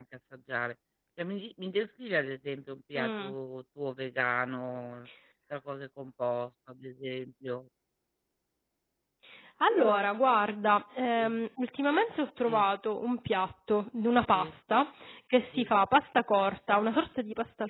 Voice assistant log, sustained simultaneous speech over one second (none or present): none